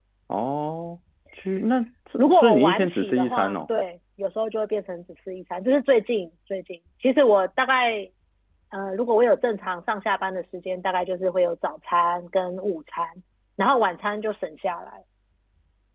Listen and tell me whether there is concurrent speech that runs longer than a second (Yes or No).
Yes